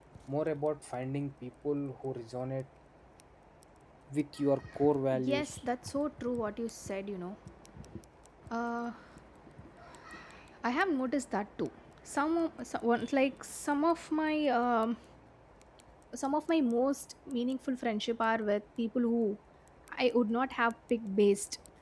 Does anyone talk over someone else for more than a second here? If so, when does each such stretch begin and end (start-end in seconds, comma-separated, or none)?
none